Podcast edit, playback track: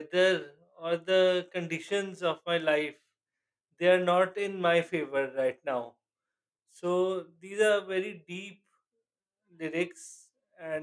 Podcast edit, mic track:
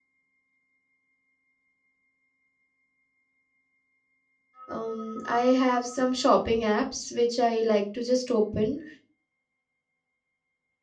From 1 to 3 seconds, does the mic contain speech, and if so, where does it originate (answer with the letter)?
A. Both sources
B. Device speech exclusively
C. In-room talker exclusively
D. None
D